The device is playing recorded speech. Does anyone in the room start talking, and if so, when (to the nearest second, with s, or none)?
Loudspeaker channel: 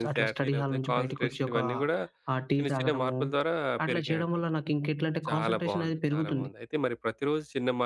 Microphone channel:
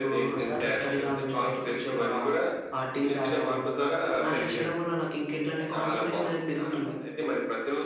3 s